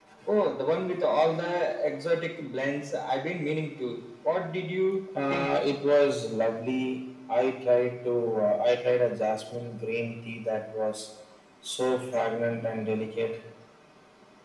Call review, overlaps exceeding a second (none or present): none